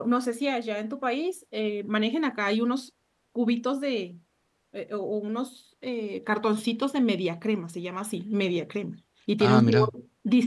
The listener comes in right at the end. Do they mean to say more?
No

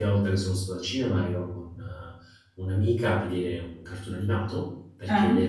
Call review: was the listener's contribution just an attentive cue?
Yes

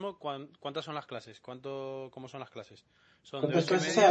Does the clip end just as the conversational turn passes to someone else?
Yes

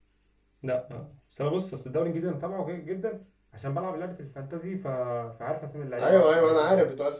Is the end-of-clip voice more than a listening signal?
Yes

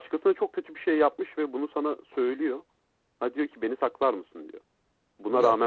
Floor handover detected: Yes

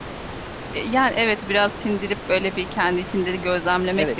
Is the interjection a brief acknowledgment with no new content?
No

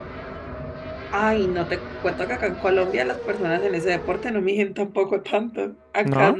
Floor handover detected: No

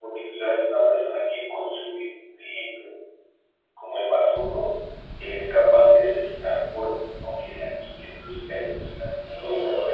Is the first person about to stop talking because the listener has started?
Yes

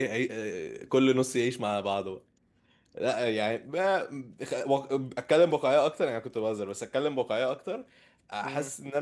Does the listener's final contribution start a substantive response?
No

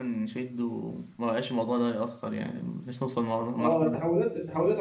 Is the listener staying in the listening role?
No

